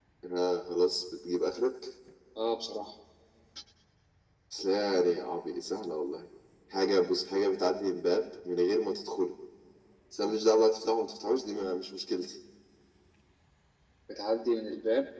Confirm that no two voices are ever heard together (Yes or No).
Yes